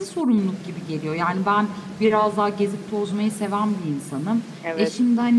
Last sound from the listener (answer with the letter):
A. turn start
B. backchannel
B